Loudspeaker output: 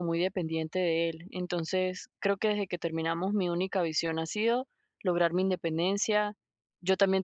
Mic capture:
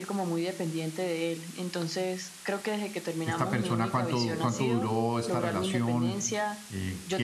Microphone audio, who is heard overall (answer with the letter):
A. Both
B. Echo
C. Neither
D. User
A